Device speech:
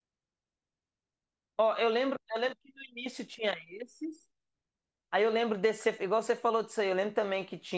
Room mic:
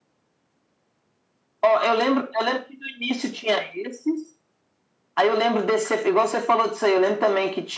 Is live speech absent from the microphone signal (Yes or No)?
Yes